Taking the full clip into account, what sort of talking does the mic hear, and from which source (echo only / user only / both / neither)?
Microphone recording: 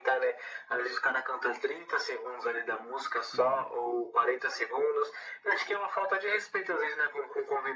both